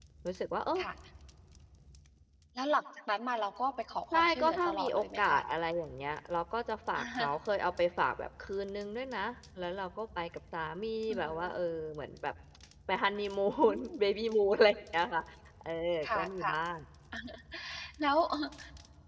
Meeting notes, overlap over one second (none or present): present